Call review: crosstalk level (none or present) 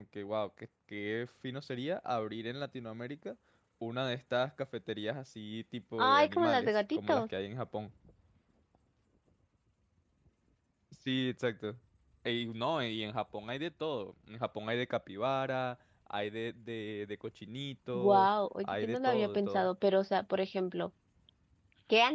present